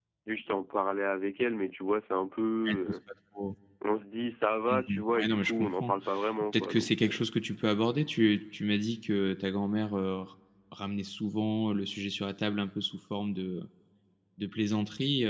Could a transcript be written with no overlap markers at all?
No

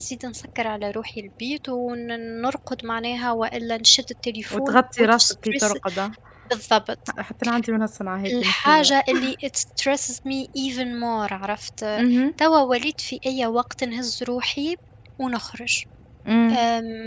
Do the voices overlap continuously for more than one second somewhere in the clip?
Yes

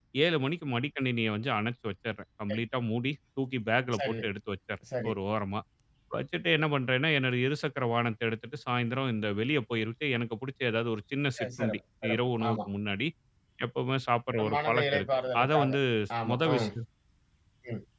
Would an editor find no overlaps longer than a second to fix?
No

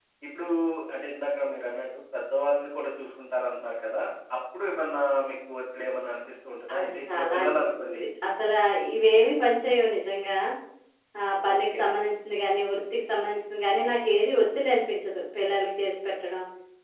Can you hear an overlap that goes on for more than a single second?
Yes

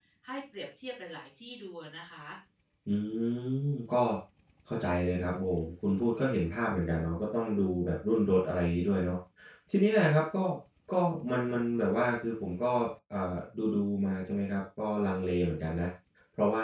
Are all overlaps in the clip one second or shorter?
Yes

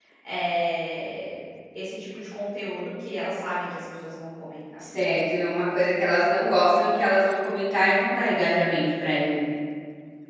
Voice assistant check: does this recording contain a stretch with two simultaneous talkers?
No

